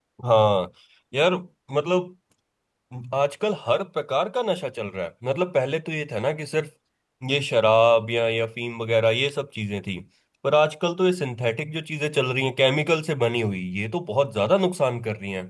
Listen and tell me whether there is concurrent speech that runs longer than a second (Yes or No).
No